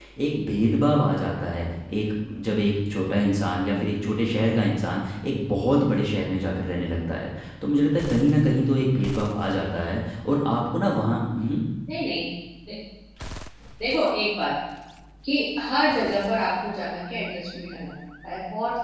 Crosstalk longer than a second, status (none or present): none